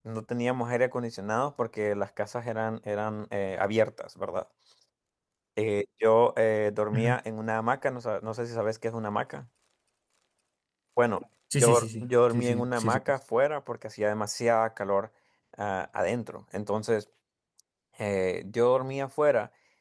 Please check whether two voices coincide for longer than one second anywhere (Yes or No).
Yes